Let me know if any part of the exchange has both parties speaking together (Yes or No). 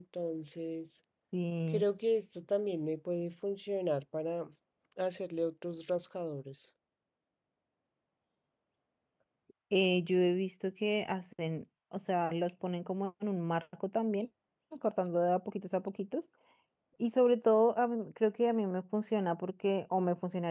No